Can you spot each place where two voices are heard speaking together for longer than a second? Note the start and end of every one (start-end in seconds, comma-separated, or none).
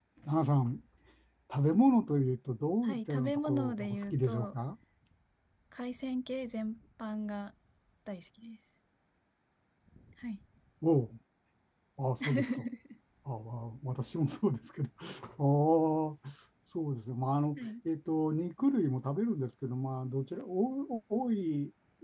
2.8-4.6